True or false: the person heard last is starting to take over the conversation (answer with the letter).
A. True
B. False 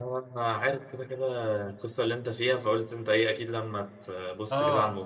A